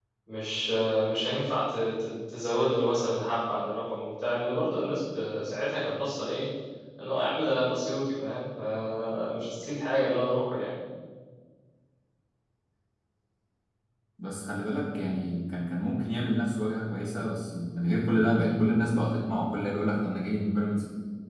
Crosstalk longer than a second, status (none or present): none